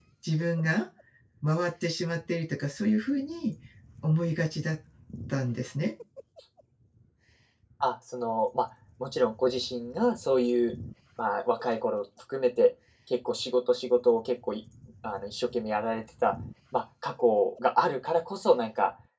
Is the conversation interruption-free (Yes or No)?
Yes